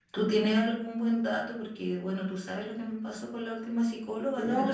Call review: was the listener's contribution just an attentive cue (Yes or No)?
No